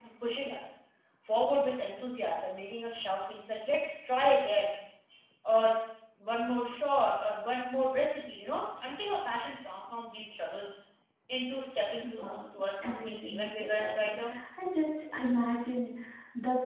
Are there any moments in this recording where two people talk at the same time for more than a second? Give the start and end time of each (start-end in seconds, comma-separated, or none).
12.8-14.2